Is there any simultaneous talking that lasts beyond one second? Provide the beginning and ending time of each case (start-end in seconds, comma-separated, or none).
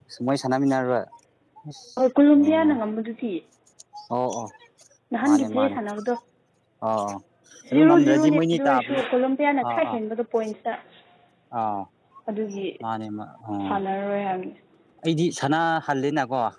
7.7-9.0